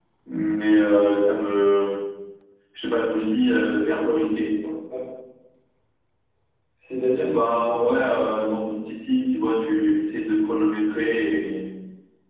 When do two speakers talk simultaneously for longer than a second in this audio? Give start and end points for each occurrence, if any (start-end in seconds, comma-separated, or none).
7.2-8.8